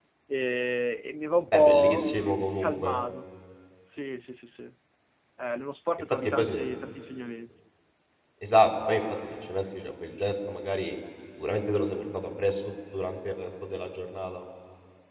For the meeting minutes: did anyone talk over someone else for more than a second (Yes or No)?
Yes